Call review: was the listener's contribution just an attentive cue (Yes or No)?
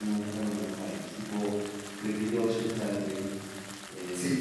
No